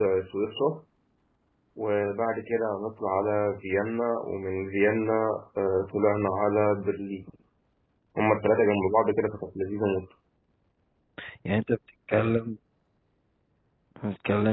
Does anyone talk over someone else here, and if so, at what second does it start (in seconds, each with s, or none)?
none